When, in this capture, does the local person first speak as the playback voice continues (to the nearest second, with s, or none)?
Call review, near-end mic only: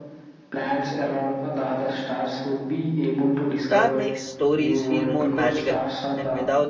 4 s